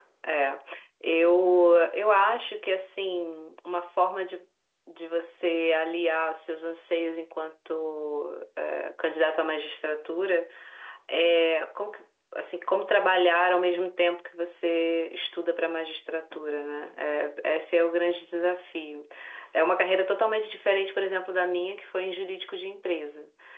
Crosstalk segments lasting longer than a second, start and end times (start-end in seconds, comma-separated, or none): none